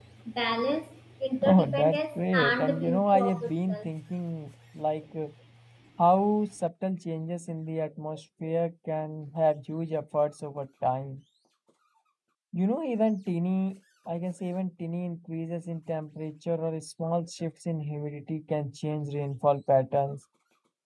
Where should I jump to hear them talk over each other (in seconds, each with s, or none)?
1.4 s